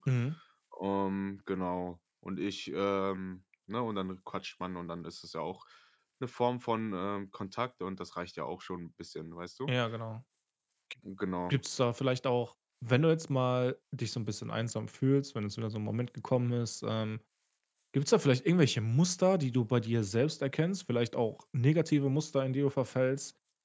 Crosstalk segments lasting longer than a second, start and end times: none

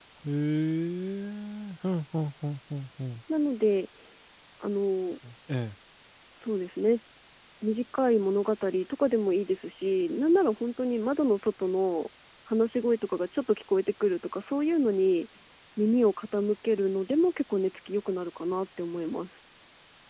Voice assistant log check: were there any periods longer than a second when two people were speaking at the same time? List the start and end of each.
none

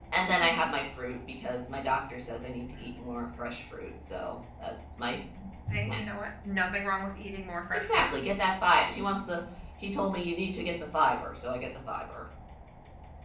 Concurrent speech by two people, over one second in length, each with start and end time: none

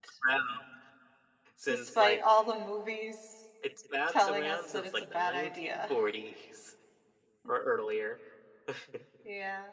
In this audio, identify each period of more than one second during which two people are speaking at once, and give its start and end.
4.1-5.9

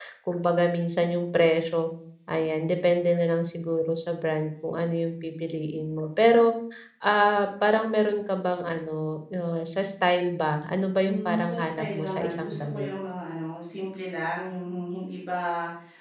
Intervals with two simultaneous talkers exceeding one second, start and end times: 11.1-12.9

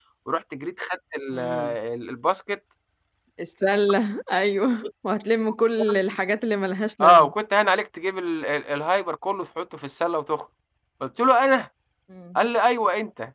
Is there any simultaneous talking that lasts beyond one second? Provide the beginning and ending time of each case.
none

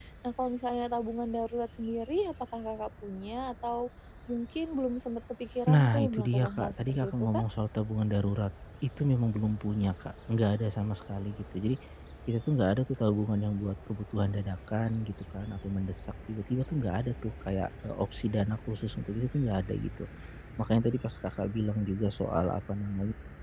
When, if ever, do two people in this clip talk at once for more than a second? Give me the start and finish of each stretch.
5.7-7.4

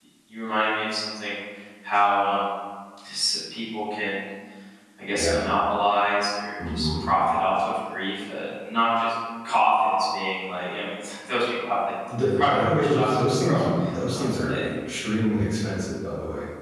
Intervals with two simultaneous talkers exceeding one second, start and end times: 12.1-13.6

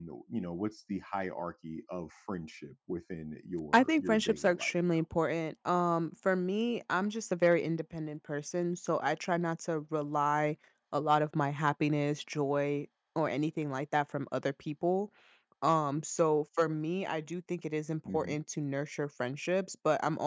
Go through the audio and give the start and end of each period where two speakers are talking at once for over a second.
3.7-5.0

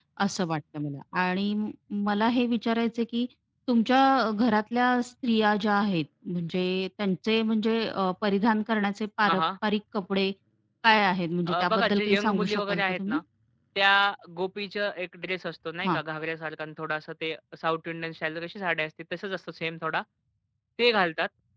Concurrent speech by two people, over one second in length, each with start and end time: 11.5-13.2

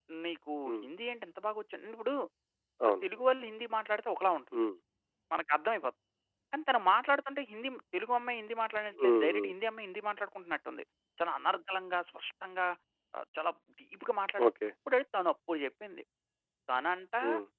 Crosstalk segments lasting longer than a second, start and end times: none

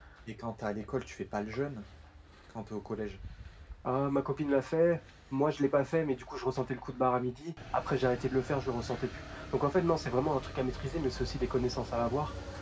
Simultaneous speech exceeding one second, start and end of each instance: none

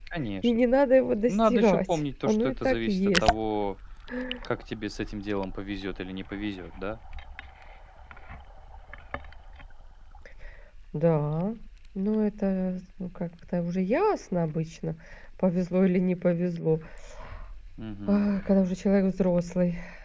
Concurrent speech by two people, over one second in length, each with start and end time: 1.3-3.3

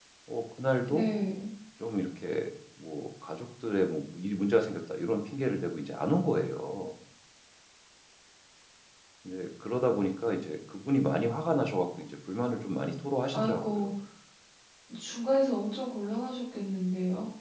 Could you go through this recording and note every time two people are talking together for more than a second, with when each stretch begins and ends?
none

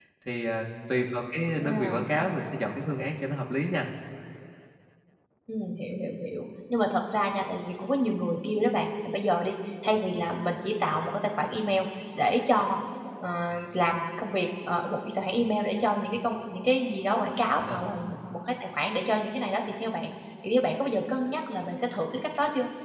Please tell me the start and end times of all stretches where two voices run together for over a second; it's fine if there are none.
none

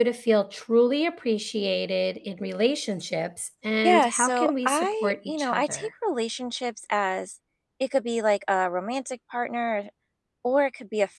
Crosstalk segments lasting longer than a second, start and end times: 3.8-5.9

